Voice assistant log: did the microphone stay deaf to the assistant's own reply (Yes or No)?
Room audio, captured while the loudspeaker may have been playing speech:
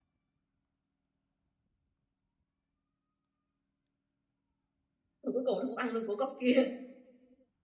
Yes